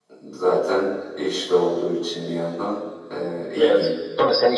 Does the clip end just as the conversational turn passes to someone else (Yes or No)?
Yes